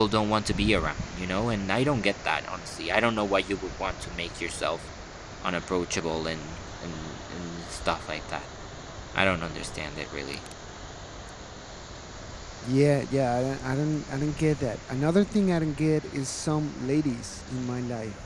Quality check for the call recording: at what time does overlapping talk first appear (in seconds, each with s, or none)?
none